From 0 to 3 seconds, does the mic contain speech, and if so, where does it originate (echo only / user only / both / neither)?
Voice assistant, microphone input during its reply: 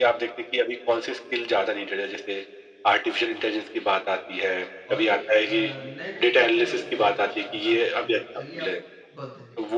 echo only